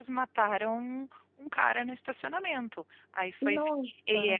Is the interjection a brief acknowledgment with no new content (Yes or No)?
Yes